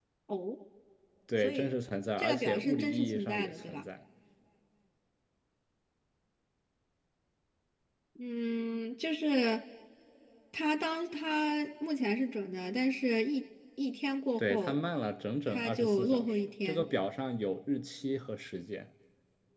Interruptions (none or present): present